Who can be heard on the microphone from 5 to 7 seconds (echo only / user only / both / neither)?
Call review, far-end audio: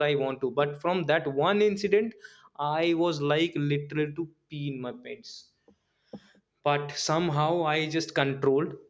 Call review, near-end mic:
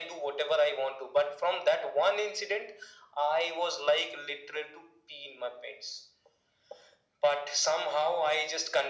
echo only